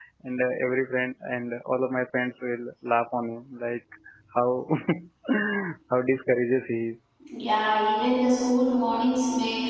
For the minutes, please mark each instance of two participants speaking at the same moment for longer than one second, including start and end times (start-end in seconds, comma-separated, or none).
none